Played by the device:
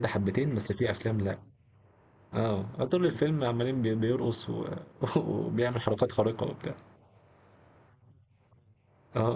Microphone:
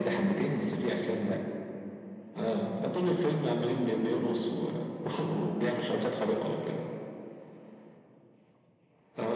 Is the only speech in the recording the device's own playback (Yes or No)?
Yes